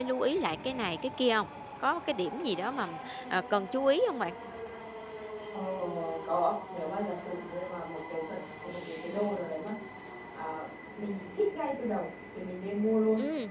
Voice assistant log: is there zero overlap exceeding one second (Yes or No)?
Yes